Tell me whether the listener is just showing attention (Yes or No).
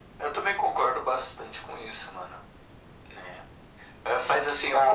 Yes